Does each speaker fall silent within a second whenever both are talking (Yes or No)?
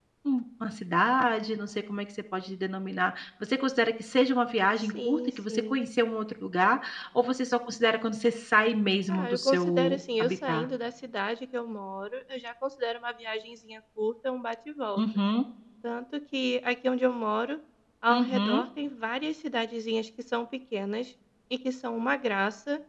No